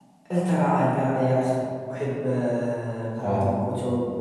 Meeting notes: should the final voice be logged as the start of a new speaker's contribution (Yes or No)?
No